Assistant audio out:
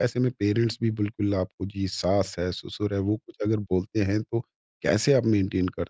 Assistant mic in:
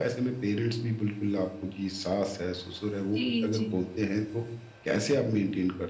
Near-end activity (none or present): present